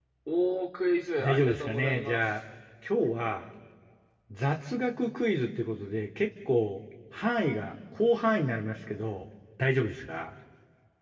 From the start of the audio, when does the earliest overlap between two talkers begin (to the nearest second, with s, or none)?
1 s